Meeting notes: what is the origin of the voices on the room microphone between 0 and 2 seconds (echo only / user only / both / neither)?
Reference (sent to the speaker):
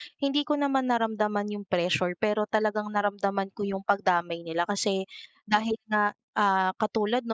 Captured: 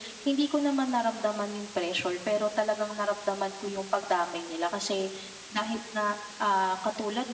echo only